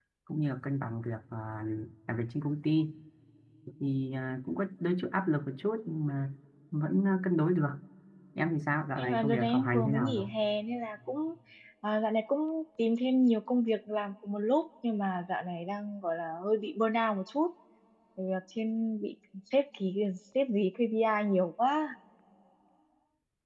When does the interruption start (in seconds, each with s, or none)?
9.0 s